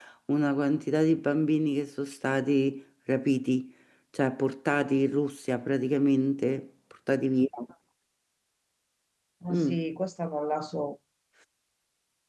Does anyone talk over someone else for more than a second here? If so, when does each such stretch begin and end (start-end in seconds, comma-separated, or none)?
none